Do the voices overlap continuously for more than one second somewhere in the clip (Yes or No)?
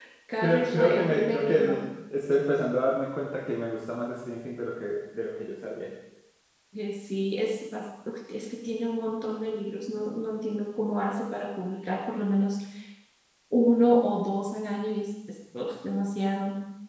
Yes